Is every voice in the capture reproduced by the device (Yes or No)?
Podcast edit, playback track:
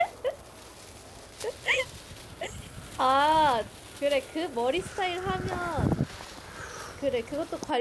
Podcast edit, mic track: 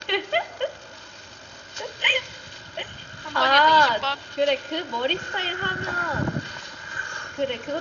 No